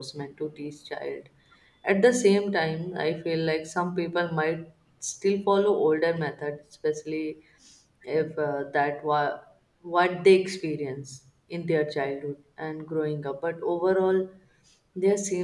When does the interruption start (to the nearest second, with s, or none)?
none